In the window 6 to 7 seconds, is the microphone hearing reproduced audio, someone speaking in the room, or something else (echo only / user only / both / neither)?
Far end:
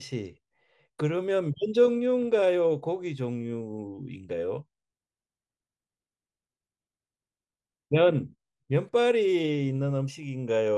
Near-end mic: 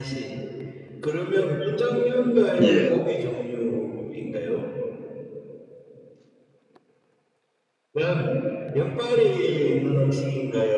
neither